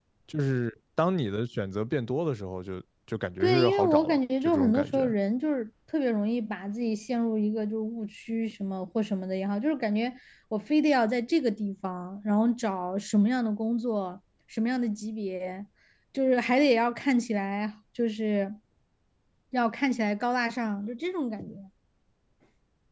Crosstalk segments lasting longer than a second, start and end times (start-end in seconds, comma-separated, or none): 3.4-5.1